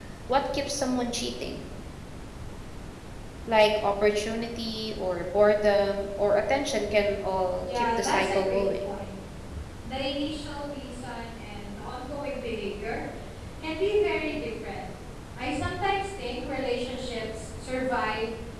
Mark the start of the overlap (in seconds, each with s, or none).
7.6 s